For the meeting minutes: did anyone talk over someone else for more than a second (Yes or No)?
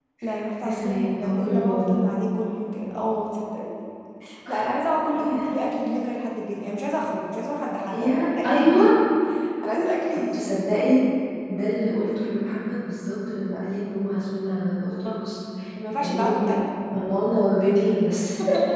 Yes